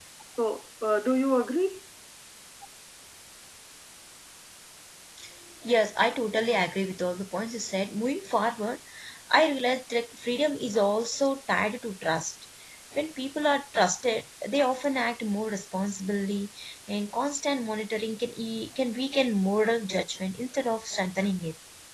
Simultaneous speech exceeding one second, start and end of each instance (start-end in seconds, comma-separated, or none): none